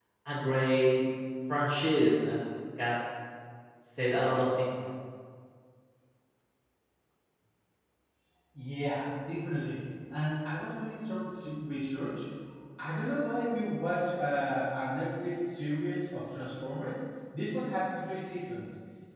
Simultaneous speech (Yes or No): No